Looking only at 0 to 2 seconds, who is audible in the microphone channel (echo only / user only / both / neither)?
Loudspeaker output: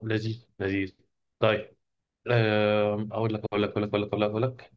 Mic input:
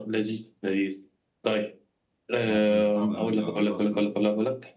echo only